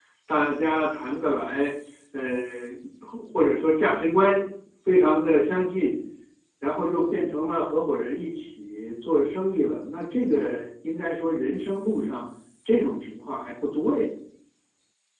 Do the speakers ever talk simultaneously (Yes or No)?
No